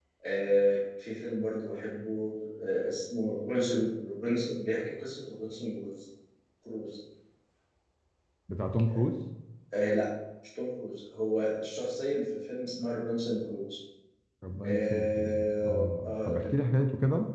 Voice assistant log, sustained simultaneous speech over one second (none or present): present